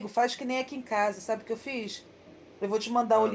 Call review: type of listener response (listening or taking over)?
listening